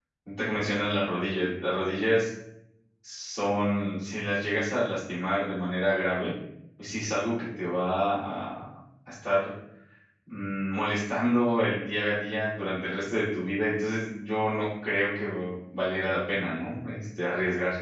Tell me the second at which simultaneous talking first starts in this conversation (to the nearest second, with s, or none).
none